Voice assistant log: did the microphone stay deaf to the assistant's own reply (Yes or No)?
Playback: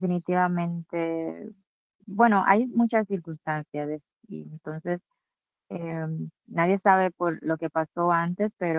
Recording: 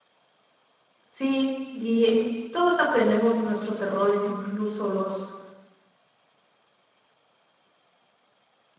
Yes